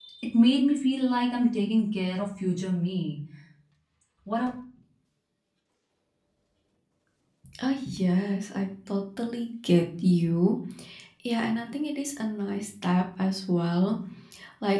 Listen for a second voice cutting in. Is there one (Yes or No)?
No